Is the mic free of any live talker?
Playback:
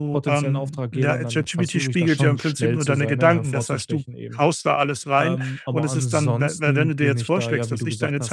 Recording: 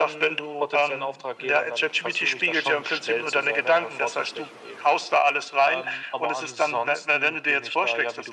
Yes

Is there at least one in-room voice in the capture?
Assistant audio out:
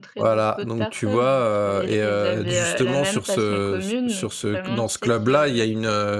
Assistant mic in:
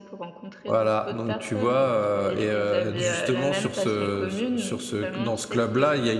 No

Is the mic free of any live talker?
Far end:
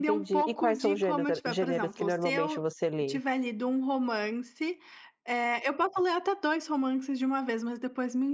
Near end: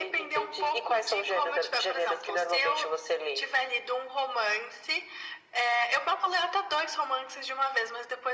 Yes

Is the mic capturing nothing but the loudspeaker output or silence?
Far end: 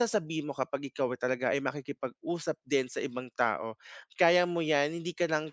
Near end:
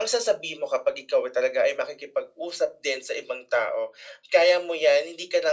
Yes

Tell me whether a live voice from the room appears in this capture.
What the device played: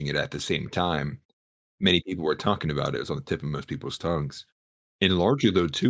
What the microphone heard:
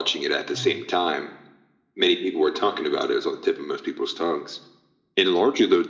Yes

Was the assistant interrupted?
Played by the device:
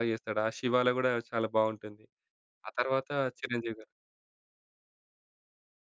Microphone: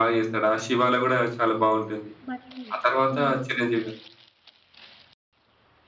Yes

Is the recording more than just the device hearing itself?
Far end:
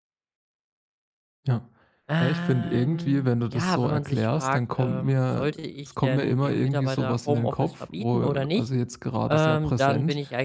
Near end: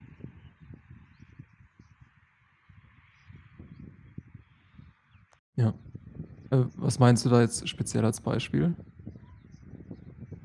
Yes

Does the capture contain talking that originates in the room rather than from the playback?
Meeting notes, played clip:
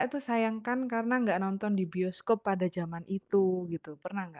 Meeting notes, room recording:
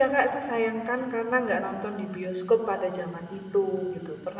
No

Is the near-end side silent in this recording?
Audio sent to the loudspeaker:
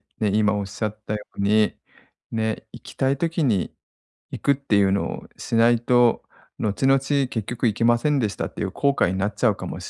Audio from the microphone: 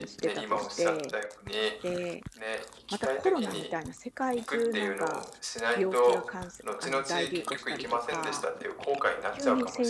No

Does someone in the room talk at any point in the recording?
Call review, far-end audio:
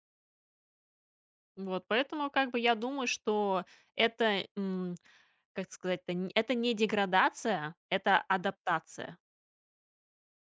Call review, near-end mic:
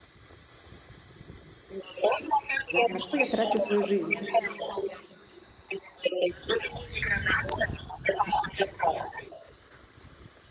Yes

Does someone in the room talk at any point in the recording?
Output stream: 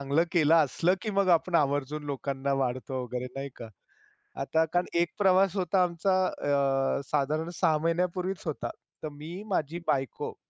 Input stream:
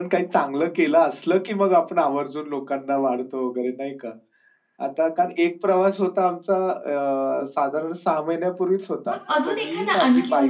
Yes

